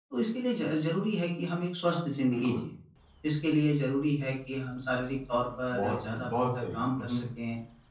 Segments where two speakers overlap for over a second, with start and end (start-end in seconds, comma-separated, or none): 5.7-7.2